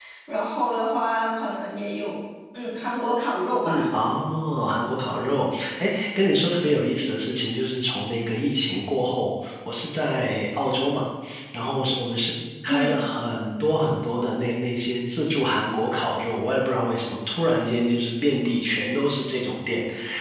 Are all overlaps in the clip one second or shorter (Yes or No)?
Yes